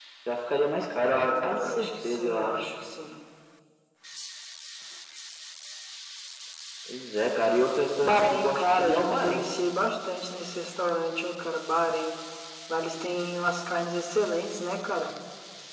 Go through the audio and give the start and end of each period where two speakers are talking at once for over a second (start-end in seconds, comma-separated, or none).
1.1-2.6, 8.0-9.5